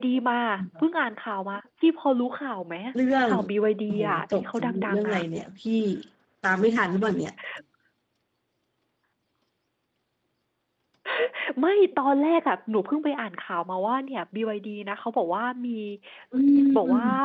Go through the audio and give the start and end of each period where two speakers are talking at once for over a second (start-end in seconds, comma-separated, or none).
3.9-5.2